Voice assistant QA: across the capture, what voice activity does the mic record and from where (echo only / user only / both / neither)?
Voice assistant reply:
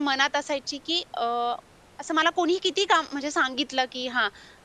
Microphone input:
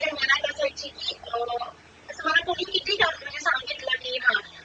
echo only